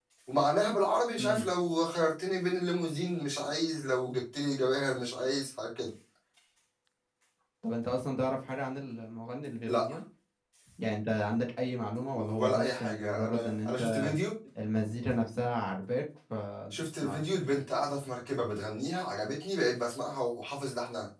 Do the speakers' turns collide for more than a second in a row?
Yes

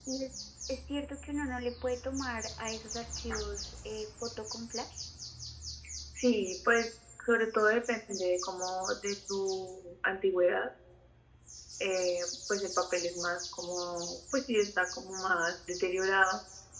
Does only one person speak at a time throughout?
Yes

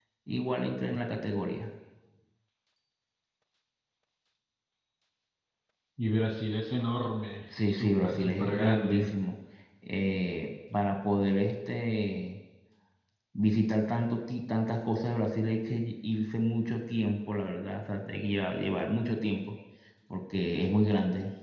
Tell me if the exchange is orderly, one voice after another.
No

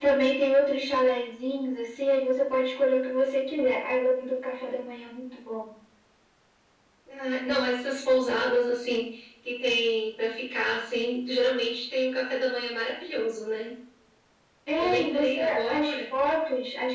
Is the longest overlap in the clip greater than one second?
Yes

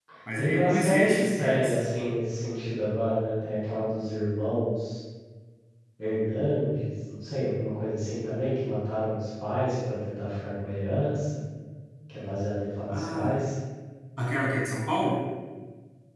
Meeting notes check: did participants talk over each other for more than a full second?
Yes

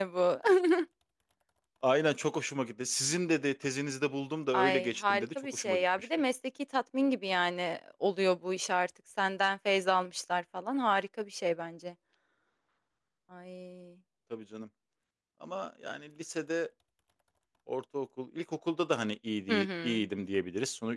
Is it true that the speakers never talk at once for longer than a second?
No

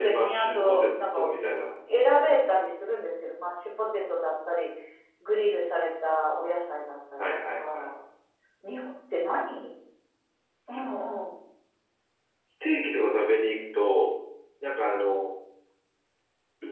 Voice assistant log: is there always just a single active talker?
No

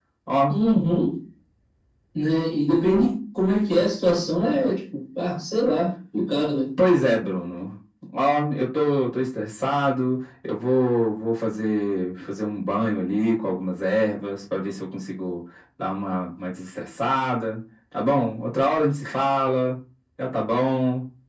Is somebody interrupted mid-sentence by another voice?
No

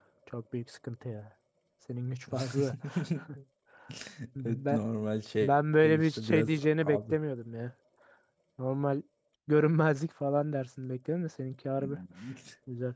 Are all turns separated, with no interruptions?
No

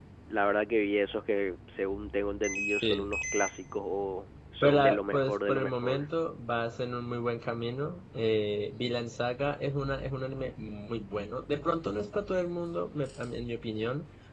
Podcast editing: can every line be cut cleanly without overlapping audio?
No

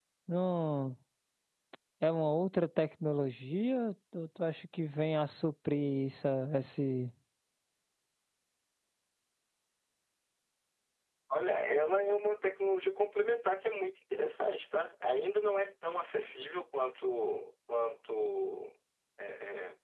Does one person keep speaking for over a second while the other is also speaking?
No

